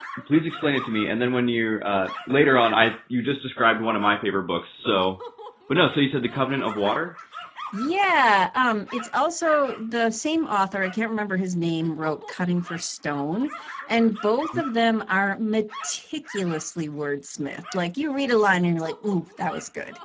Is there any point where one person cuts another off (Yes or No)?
No